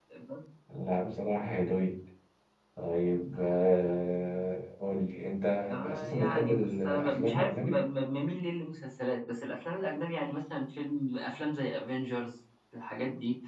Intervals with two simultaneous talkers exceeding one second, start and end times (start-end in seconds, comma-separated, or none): 5.8-7.8